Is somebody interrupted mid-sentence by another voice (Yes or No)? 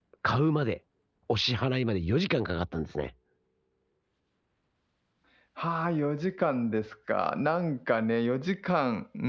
No